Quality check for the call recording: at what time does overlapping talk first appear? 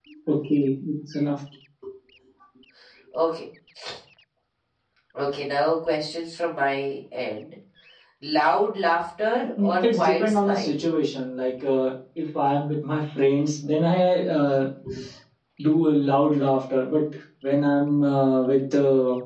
9.3 s

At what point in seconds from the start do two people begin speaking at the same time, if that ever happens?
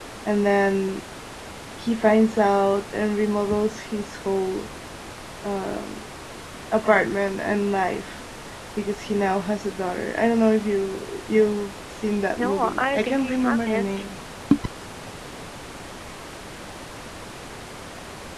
12.4 s

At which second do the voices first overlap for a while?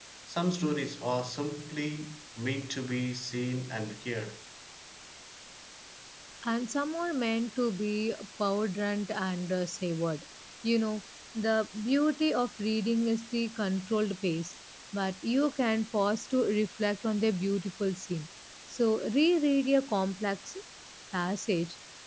none

